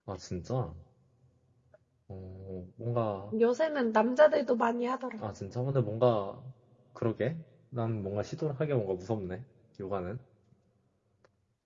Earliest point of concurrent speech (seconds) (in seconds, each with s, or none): none